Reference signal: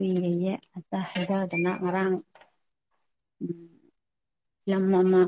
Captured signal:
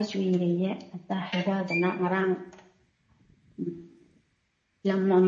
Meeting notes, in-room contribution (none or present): none